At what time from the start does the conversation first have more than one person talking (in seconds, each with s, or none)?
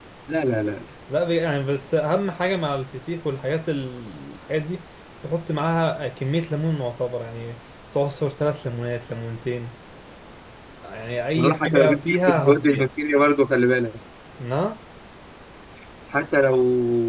11.4 s